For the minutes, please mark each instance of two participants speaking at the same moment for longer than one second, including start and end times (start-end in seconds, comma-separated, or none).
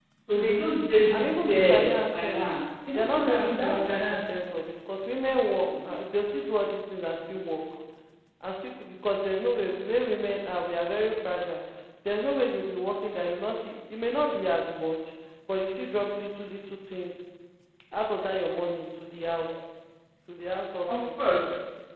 1.1-2.4, 2.9-4.2